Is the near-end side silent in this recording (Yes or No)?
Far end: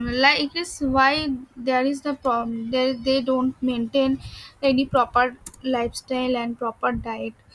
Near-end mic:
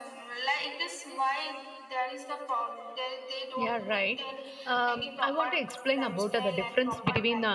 No